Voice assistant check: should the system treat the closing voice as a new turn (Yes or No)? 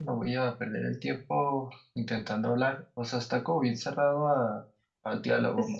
Yes